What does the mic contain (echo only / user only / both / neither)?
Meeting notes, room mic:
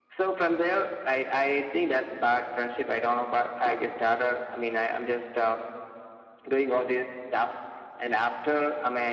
echo only